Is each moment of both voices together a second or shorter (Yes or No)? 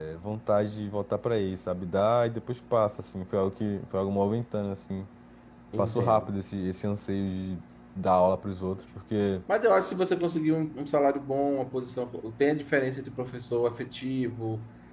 Yes